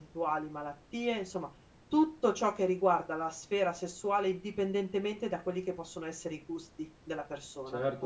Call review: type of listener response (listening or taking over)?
taking over